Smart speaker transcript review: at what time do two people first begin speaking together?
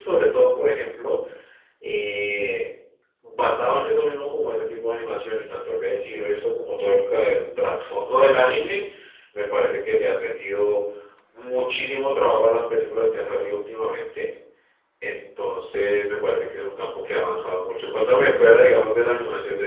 none

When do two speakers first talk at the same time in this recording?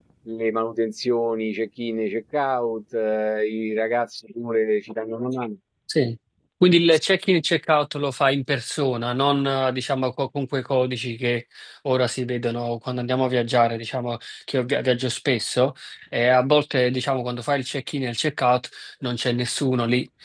none

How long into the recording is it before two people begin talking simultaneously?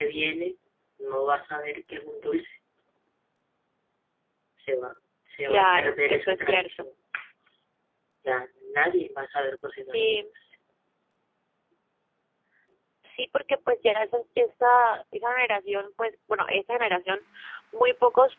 5 s

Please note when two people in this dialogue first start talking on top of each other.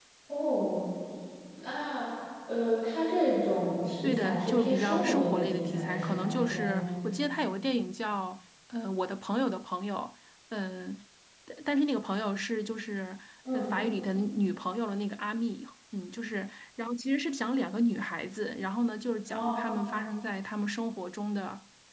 4 s

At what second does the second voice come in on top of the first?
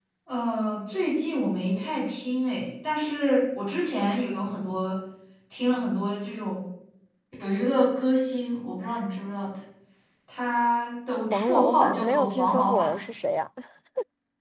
11 s

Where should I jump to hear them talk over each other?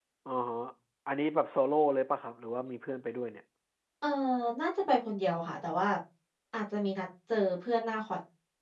none

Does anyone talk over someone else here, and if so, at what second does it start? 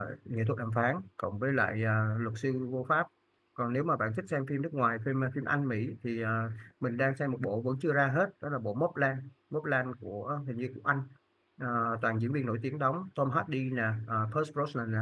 none

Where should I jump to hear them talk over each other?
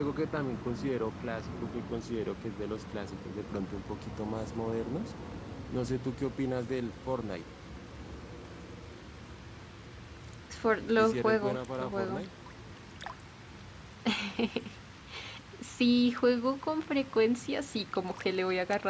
11 s

